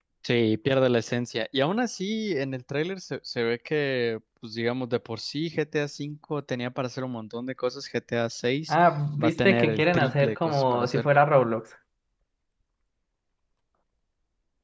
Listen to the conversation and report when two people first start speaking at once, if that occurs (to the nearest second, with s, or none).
9 s